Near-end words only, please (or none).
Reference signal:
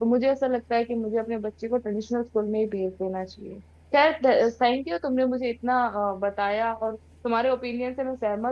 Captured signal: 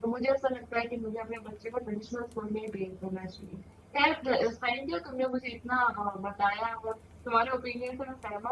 none